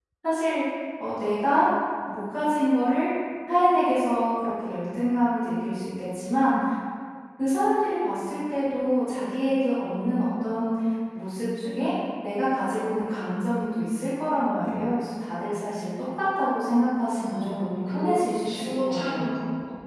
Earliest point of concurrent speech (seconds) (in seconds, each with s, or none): 17.2 s